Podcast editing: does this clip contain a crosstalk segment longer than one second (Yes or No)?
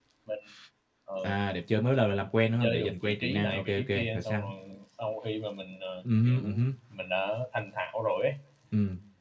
Yes